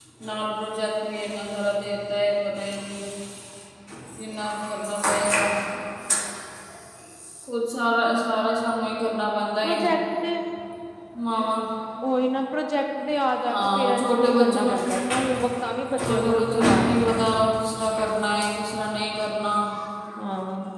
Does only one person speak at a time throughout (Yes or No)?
No